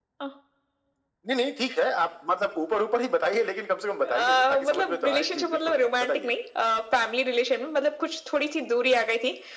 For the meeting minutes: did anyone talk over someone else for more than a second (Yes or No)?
Yes